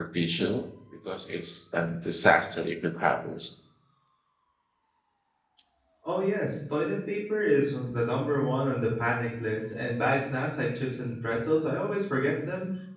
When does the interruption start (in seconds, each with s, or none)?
none